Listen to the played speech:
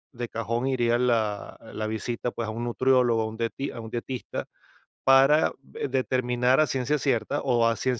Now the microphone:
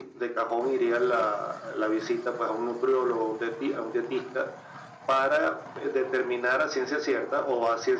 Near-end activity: none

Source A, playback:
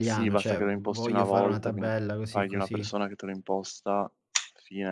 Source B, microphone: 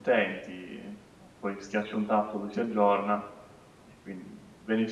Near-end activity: present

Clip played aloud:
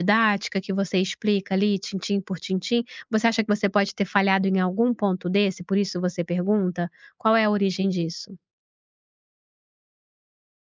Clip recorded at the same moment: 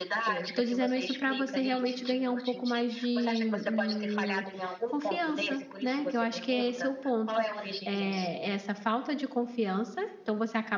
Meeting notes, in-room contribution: present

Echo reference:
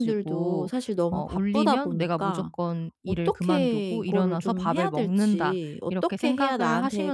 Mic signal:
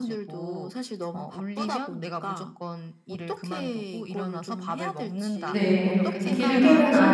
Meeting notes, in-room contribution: present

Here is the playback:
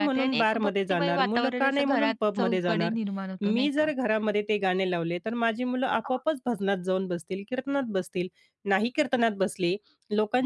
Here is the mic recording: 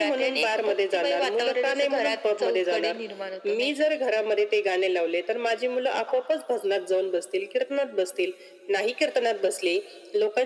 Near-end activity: none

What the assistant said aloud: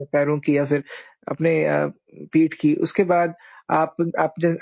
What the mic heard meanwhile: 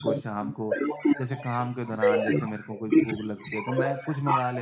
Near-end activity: present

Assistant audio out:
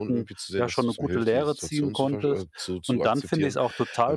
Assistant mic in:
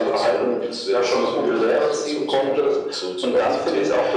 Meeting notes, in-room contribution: none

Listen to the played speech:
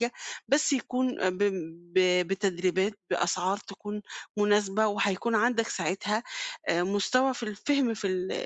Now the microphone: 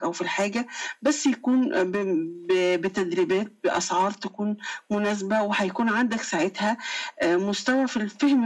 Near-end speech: none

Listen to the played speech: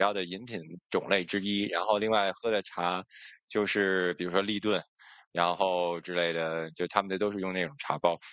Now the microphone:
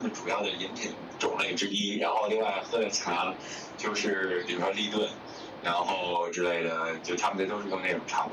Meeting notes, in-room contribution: none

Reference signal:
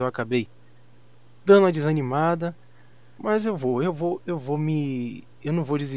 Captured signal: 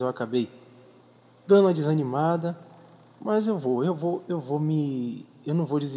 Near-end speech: none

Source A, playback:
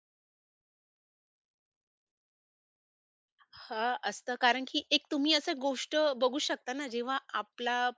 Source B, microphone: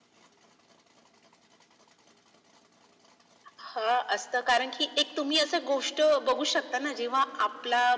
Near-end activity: none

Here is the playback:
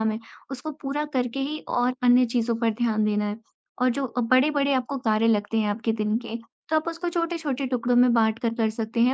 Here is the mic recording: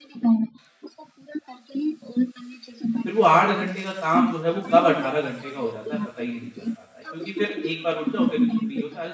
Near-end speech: present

